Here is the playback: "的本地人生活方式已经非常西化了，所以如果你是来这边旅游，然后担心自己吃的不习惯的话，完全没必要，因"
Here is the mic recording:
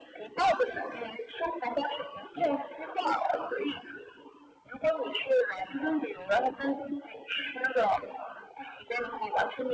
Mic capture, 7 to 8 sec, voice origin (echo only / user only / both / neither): echo only